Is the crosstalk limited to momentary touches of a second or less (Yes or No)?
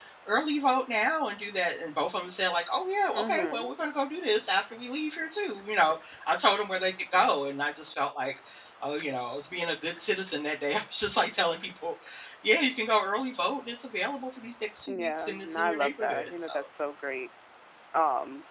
No